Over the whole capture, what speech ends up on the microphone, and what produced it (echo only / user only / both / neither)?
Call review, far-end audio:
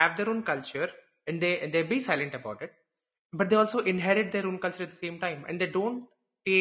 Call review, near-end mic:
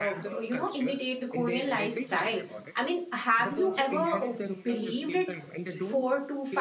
both